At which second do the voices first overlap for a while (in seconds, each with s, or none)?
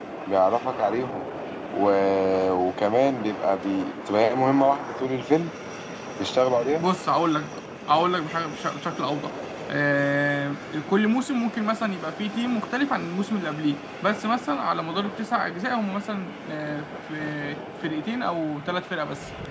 none